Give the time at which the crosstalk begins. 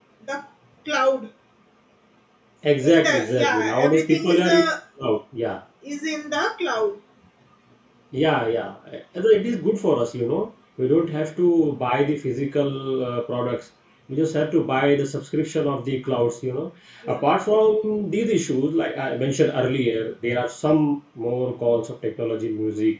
2.8 s

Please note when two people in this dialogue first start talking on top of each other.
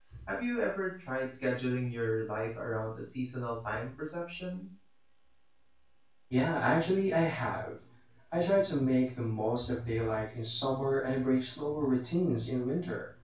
none

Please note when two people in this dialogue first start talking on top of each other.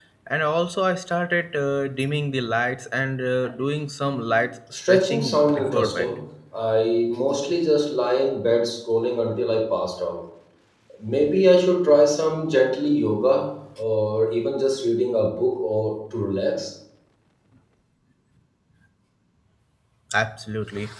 4.7 s

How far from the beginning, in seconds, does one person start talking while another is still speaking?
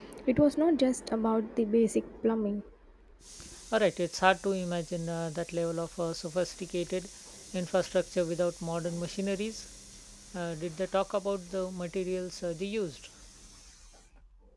none

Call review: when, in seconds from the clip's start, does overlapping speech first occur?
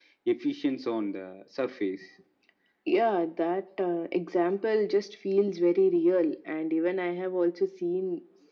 none

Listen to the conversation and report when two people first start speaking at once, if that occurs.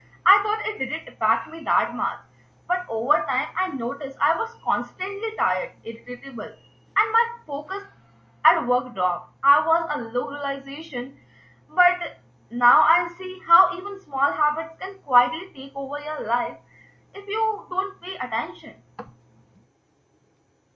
none

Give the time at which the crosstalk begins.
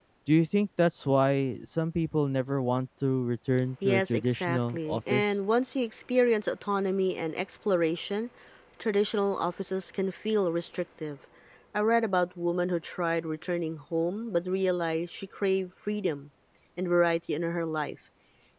3.8 s

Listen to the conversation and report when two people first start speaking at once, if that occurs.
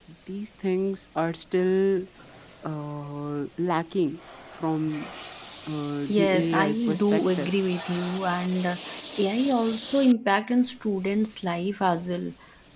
6.1 s

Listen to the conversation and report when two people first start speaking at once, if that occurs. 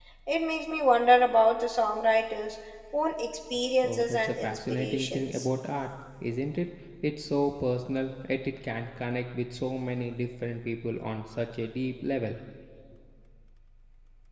3.8 s

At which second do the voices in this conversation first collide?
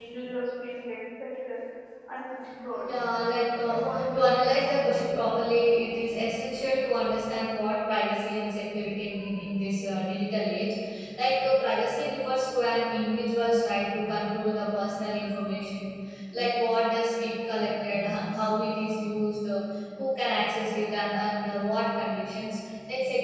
3.6 s

